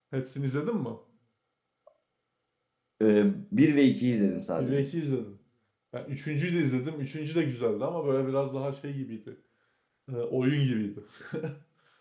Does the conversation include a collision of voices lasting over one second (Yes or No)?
No